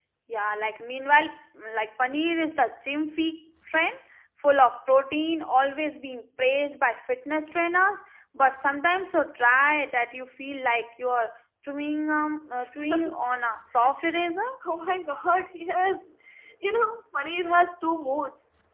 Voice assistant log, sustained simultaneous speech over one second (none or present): none